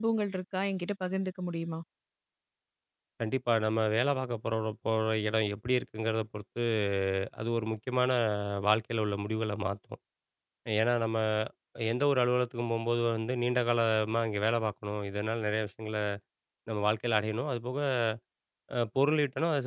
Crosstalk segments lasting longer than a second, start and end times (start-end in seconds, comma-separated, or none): none